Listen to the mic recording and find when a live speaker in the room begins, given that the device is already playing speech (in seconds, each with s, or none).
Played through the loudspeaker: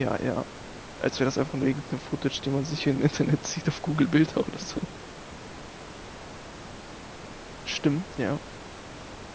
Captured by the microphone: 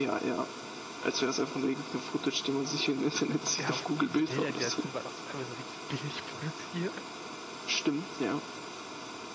3.6 s